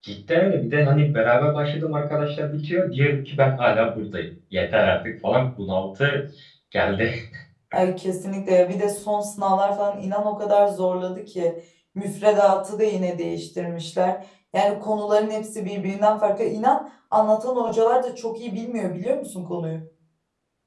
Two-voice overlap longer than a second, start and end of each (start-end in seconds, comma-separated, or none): none